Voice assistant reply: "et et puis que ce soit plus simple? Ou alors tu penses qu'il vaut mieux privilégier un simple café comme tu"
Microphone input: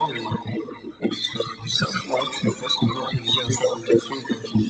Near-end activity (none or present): none